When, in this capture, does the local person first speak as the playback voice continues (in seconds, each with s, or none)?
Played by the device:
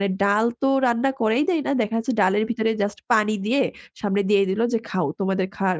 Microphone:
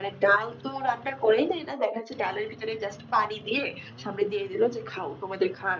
none